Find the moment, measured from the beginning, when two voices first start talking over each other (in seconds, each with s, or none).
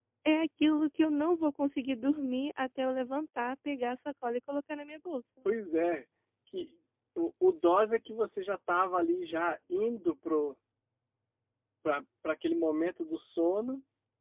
none